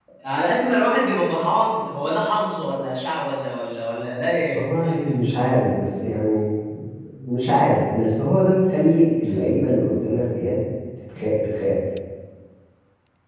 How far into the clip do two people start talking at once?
none

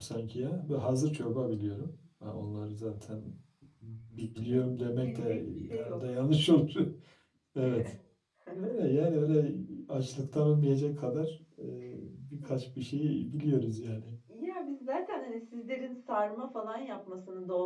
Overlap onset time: 4.4 s

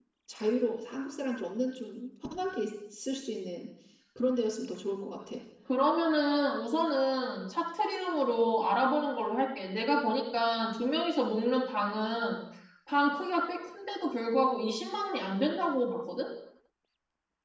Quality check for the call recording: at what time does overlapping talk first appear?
none

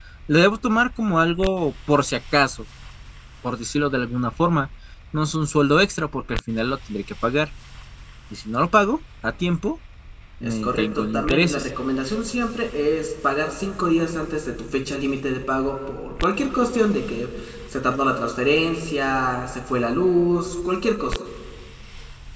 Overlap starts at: 10.4 s

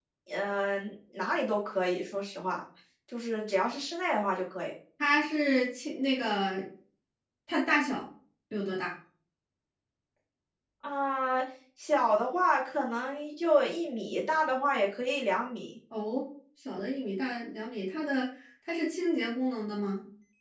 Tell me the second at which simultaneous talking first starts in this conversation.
none

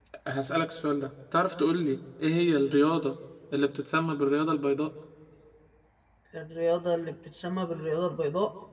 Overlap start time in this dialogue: none

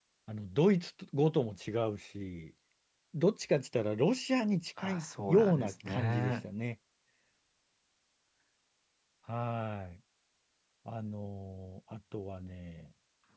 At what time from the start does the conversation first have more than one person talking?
4.8 s

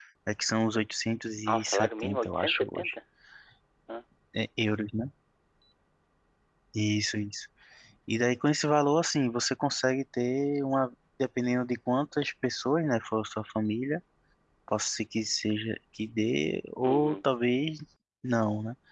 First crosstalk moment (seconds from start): 1.5 s

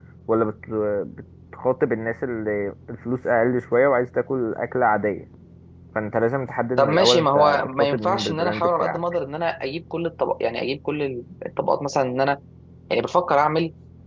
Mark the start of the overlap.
6.8 s

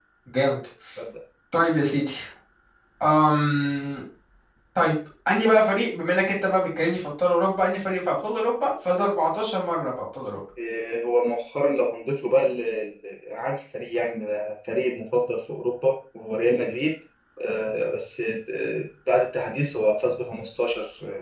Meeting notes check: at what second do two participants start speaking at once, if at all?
none

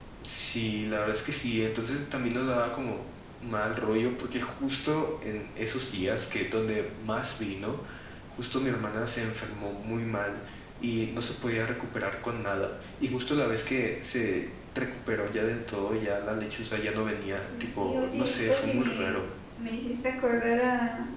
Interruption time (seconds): 17.4 s

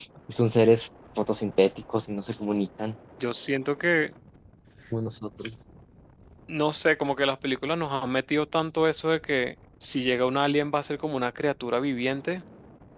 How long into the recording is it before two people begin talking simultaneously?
none

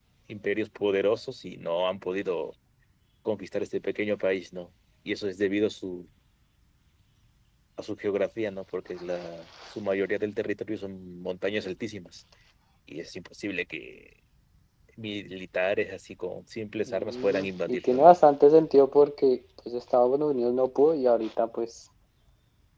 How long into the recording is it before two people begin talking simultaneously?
16.9 s

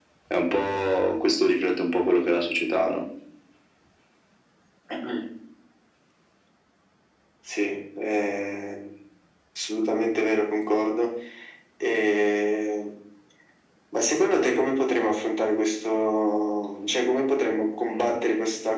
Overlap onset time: none

